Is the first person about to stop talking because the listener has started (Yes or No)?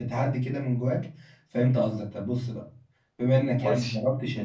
No